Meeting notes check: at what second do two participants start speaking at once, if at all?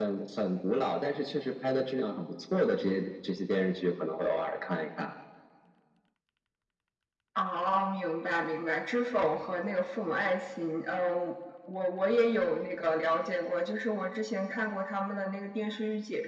none

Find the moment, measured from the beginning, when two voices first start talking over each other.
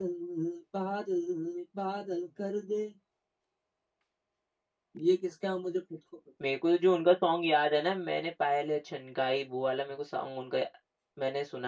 none

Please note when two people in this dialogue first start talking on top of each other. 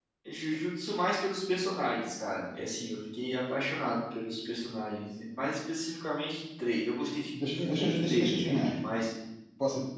7 s

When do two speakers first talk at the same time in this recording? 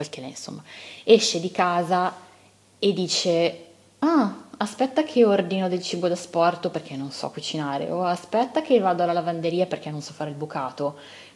none

